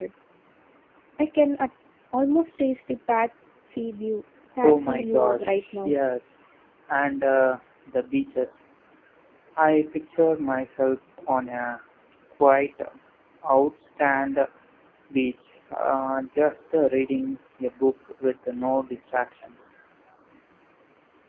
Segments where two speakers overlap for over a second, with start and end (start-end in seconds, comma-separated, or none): 4.6-6.0